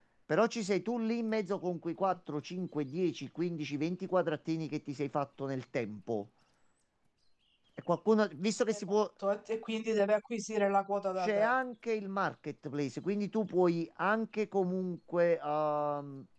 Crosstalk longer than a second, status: none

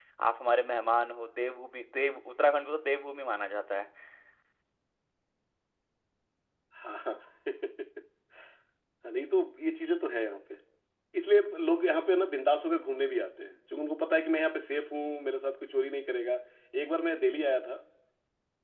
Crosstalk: none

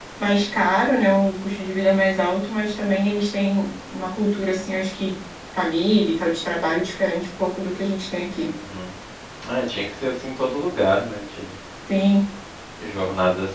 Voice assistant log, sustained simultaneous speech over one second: none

